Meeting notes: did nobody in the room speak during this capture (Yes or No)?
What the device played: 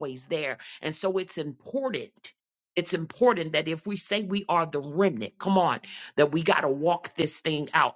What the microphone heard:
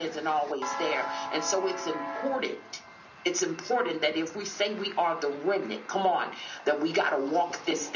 Yes